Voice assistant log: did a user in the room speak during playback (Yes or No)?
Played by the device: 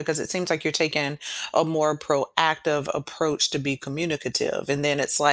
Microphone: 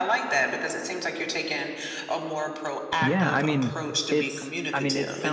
Yes